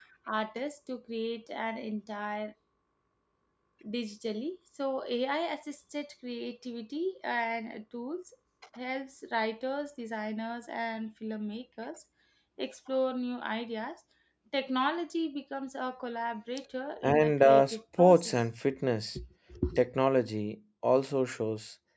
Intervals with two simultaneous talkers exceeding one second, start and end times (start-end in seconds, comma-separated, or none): 17.0-18.4